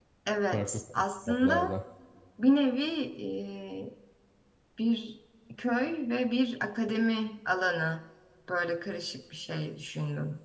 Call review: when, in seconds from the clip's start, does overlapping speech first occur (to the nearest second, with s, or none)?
1 s